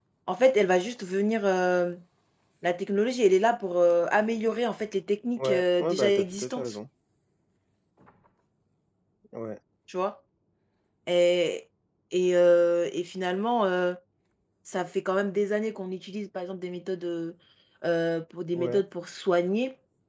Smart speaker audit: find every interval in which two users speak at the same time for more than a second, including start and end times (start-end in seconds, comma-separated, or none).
5.4-6.8